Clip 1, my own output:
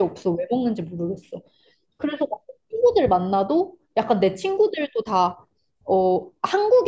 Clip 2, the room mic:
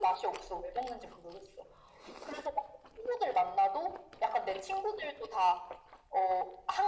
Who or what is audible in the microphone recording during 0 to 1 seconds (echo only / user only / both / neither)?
echo only